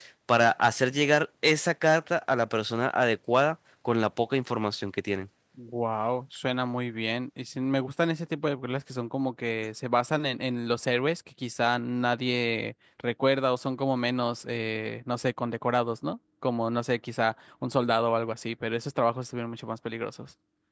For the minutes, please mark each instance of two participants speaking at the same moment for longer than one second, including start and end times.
none

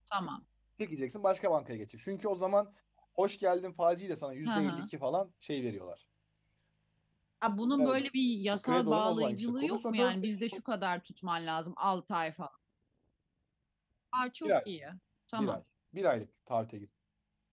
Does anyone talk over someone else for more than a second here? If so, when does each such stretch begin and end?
8.6-10.3

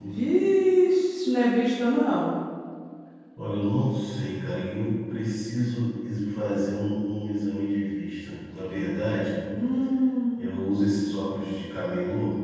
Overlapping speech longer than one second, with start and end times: none

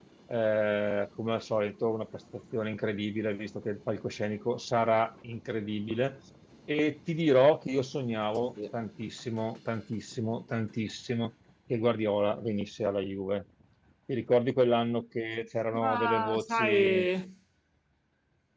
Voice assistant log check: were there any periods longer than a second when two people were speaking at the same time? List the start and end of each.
15.8-17.1

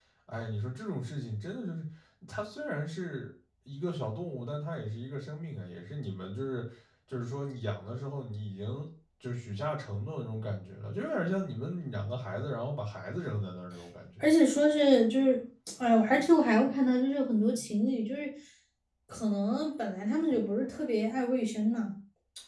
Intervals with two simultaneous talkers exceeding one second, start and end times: none

